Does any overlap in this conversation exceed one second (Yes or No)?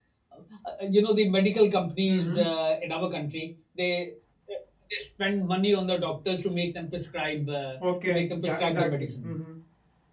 Yes